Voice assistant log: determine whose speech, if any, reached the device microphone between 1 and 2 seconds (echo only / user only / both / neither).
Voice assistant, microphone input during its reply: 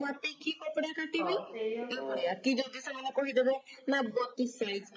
both